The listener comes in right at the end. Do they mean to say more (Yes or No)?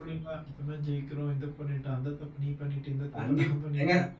Yes